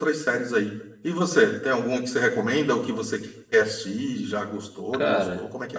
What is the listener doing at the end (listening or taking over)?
taking over